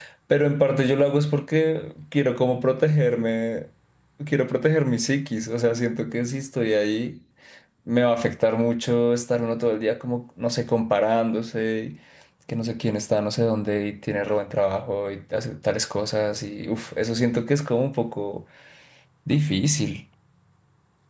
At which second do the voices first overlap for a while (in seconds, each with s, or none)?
none